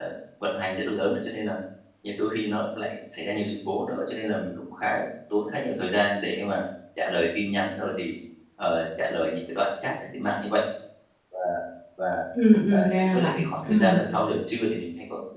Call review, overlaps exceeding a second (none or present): present